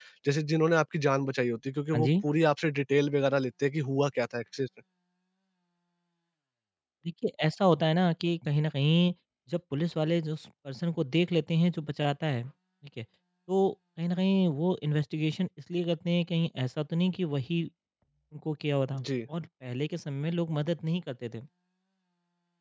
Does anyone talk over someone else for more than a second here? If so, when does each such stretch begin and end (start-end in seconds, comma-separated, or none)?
none